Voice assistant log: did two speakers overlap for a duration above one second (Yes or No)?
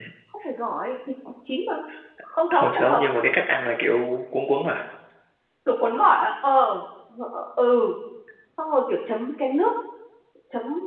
No